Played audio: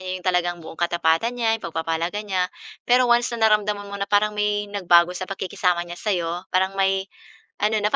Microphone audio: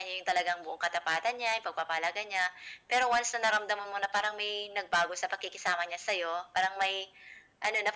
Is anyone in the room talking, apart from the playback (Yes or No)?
No